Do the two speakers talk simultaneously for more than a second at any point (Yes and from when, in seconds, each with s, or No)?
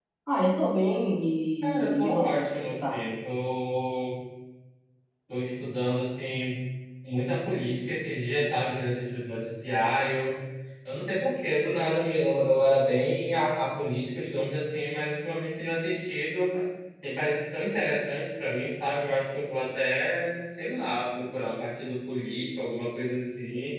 Yes, from 1.6 s